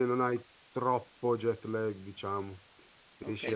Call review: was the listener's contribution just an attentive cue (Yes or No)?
No